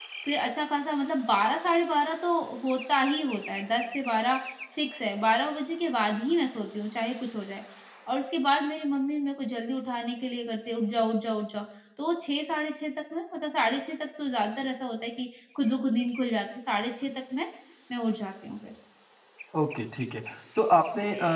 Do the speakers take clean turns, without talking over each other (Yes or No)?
Yes